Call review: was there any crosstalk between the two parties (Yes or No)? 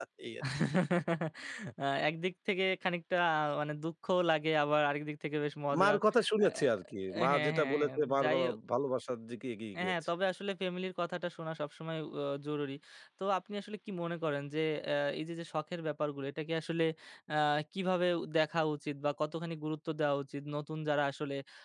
Yes